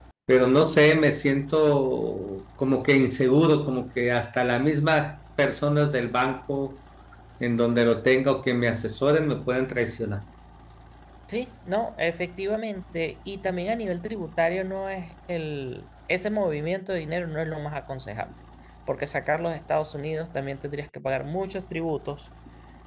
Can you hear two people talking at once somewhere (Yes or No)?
No